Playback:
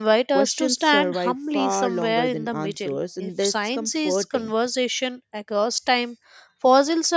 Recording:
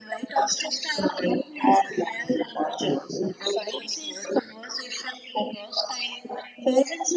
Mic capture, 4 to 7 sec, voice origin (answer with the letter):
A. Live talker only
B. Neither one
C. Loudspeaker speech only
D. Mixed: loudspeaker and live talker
C